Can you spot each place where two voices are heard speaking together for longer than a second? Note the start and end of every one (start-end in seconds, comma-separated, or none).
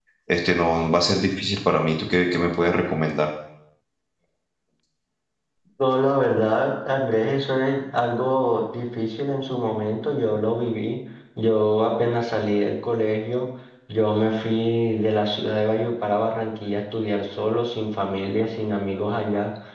none